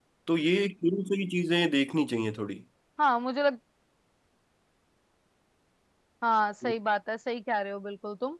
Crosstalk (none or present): none